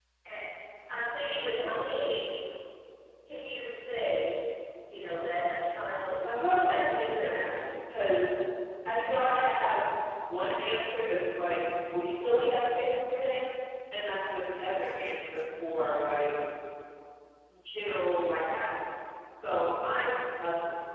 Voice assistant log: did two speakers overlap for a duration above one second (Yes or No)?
Yes